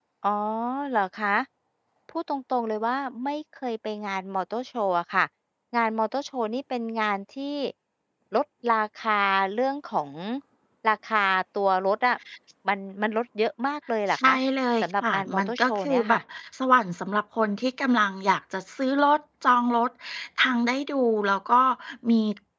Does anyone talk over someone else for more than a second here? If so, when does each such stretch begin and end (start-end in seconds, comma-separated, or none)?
14.8-16.2